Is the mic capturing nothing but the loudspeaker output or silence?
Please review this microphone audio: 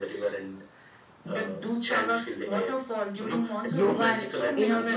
No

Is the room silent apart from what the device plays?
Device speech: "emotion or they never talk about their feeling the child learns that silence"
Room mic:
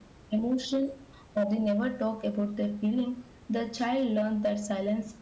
Yes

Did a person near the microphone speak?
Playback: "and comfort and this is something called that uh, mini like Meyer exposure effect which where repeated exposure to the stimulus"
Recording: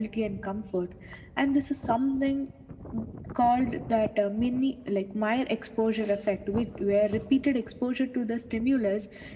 No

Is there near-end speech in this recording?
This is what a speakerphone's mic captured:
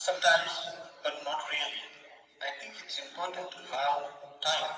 No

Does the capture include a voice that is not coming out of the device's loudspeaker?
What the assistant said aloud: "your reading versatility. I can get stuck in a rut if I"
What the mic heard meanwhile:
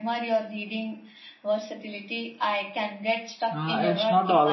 Yes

